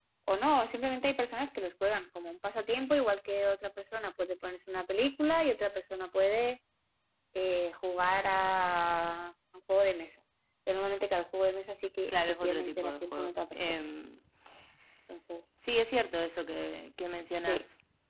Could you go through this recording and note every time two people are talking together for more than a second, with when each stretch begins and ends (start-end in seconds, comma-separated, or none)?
12.1-13.7